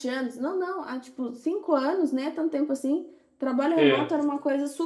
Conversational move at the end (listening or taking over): listening